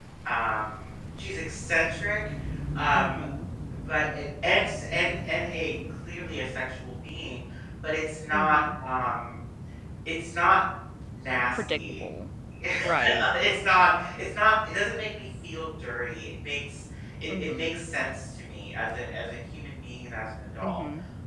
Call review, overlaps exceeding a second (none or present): none